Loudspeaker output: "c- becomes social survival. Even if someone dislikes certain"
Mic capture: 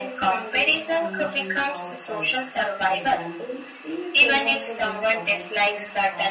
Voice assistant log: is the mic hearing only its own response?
No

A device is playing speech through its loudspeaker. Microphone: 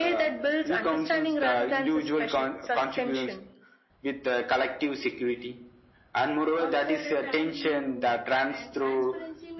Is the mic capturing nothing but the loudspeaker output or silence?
No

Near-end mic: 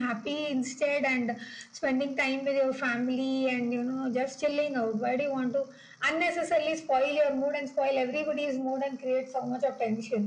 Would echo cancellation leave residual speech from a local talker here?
No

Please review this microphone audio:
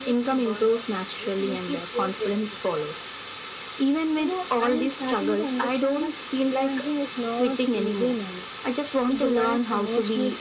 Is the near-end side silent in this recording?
Yes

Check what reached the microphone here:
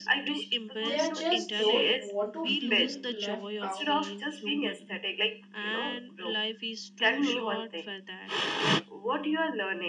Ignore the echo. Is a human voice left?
Yes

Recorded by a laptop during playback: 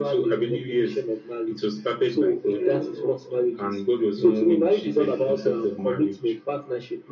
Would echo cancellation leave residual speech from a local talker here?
No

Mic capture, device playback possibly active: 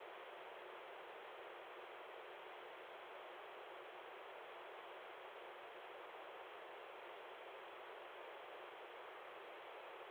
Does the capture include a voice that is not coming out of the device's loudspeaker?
No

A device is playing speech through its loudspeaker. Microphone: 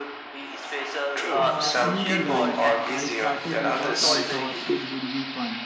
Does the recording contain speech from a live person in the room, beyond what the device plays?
Yes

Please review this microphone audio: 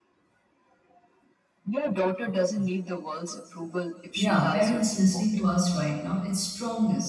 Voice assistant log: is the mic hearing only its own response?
No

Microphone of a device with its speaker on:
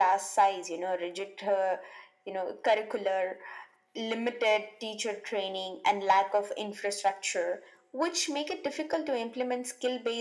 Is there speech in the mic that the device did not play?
No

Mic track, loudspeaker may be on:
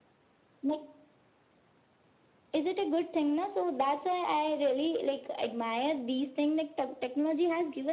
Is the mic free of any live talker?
Yes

